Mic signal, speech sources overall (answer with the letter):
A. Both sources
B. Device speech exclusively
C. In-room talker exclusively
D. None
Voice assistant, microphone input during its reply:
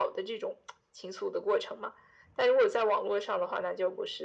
B